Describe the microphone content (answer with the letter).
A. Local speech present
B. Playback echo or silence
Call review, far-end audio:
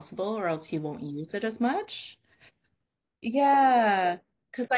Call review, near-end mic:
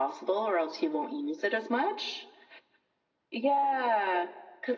B